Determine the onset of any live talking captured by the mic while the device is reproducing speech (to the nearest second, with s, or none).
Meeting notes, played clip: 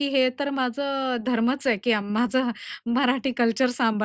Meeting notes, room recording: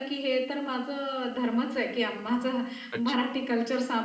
3 s